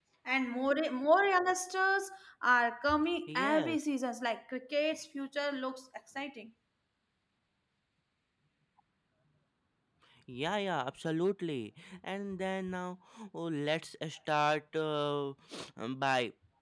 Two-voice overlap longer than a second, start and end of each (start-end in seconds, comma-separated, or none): none